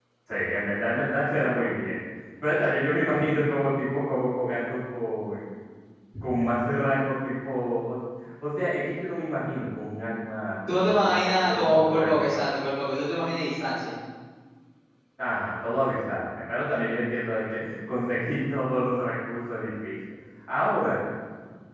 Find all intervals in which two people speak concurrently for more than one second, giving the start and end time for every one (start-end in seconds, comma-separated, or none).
10.7-12.3